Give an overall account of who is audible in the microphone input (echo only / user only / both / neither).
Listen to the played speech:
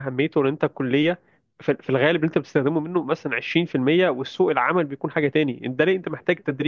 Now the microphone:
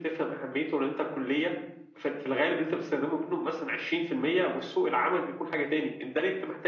echo only